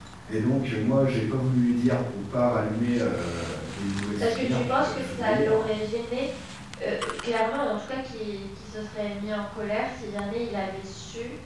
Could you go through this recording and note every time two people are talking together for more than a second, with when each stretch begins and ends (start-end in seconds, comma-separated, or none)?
4.2-5.7